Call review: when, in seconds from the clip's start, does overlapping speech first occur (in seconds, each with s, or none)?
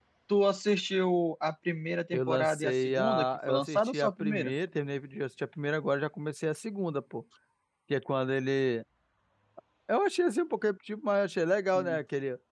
2.1 s